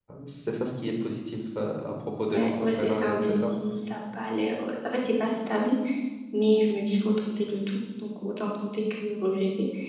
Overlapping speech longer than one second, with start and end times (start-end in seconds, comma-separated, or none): 2.3-3.5